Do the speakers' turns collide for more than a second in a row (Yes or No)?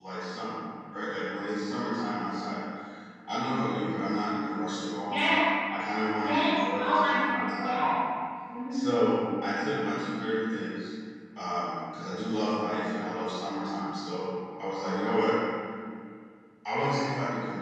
Yes